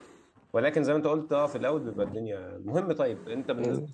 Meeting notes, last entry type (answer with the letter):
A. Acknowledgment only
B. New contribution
A